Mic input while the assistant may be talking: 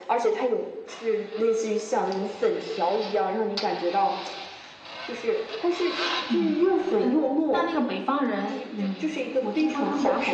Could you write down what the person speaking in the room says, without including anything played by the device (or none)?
none